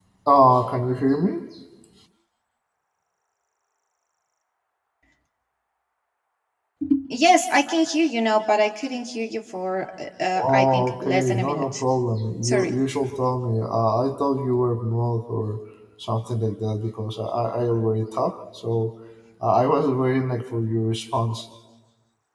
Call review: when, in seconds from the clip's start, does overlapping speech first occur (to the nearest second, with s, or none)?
10 s